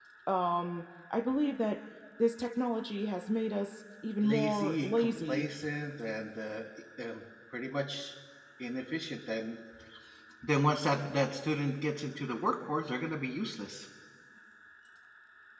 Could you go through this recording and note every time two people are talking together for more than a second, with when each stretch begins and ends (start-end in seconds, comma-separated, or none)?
4.2-5.5